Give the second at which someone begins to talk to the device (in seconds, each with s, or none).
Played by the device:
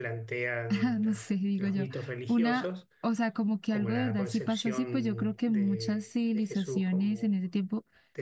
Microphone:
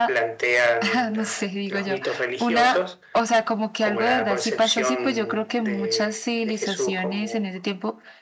none